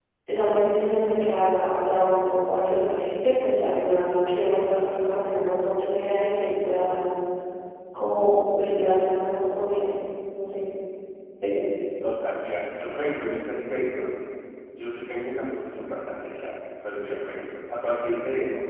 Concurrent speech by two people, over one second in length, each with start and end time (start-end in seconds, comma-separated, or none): none